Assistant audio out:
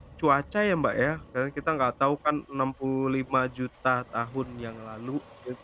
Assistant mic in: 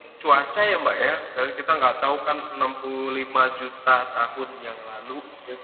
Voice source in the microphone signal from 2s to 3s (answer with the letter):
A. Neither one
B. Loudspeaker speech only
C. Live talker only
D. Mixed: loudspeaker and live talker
B